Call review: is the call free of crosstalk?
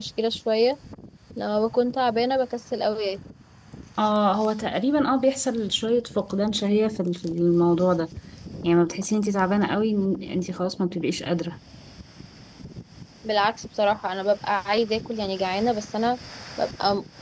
Yes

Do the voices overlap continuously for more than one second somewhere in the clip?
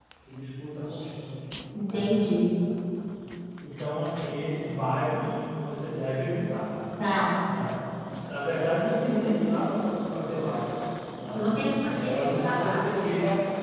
Yes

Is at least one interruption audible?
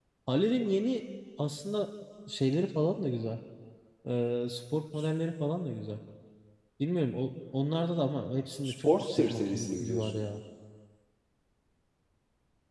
Yes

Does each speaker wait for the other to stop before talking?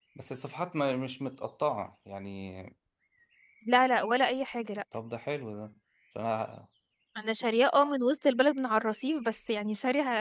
Yes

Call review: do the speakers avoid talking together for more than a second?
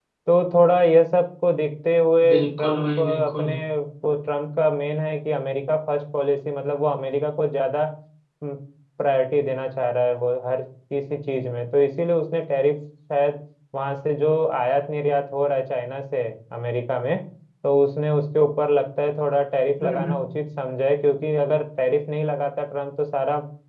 No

